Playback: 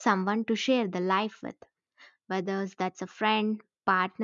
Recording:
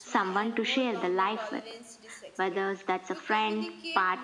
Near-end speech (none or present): present